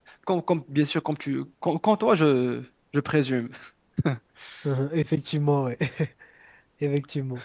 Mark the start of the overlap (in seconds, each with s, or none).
none